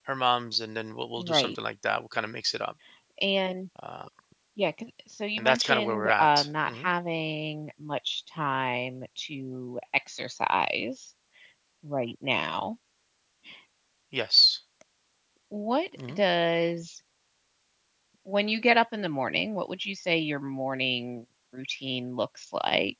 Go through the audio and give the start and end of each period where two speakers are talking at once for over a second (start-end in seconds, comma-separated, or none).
5.4-6.9